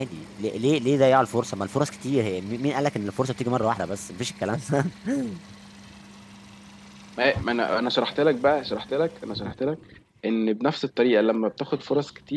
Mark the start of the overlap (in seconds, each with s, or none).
none